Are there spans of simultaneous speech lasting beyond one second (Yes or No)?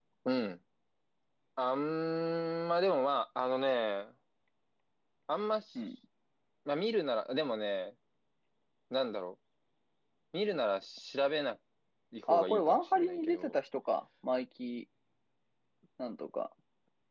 Yes